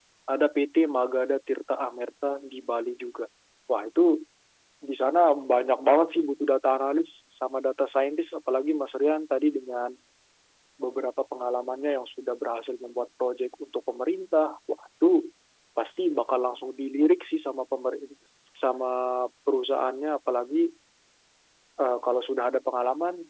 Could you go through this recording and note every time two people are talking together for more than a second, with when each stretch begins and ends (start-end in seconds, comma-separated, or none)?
none